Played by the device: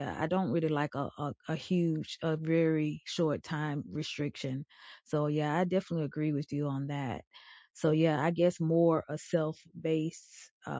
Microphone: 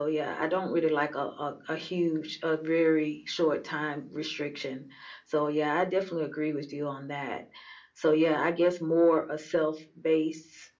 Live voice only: none

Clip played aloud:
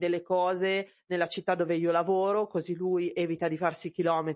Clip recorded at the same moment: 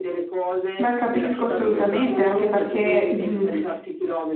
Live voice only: Beh, capisco assolutamente, anche perché, mhmm,

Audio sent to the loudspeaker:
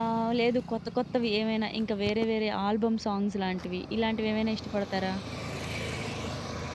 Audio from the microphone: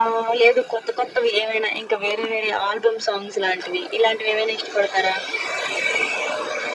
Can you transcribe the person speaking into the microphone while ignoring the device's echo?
none

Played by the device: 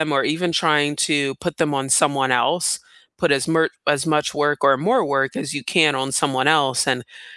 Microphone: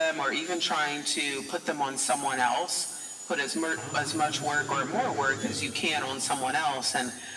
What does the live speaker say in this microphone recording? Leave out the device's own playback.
Honestly, I consider, I guess, uh,

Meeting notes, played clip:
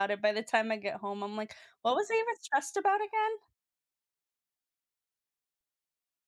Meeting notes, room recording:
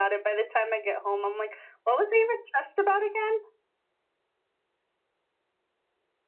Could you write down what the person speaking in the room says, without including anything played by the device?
none

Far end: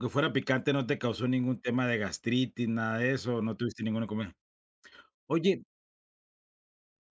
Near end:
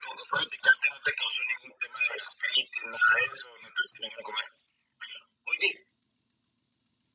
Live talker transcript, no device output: none

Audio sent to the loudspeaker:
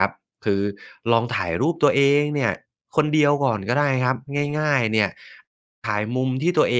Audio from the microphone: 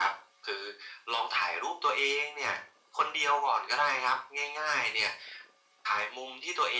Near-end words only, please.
none

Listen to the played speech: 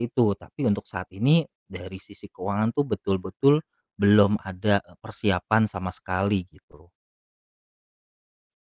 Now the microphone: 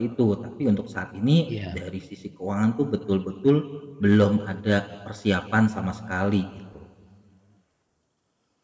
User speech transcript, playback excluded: iya,

